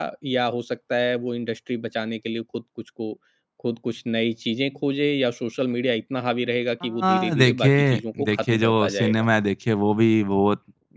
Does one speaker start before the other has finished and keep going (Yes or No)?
Yes